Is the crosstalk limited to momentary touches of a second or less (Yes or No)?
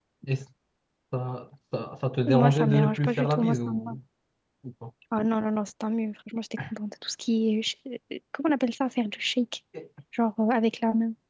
No